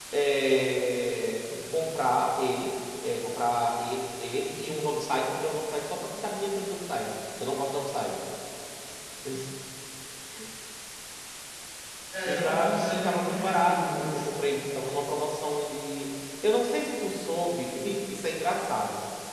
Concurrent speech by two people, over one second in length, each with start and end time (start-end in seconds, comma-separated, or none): 12.2-14.4